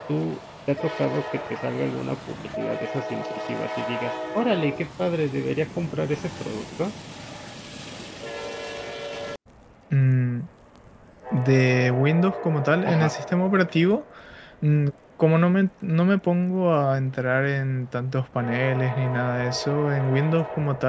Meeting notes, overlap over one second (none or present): none